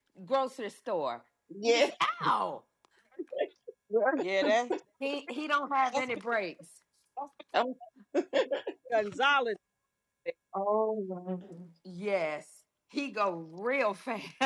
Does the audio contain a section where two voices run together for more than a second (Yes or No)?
No